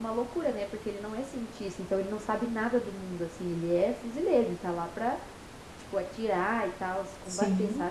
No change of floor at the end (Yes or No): No